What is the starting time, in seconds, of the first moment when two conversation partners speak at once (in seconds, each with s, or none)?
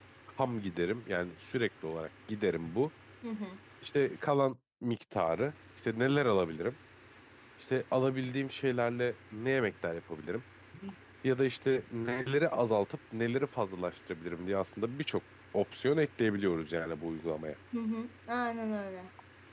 none